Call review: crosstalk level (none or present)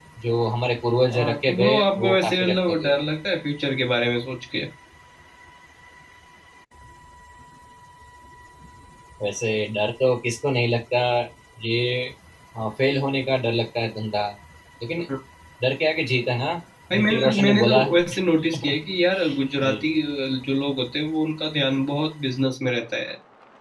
present